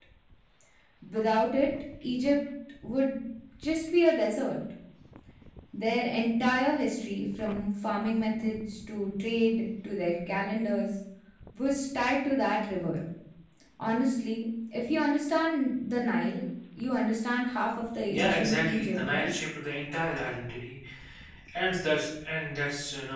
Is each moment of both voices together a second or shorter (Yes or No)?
No